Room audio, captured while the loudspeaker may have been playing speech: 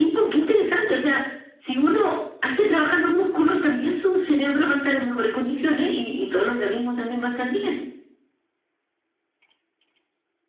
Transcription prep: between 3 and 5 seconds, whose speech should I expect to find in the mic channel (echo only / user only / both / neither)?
echo only